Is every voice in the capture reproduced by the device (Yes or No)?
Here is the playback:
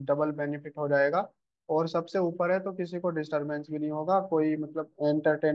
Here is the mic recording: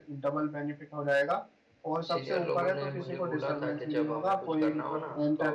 No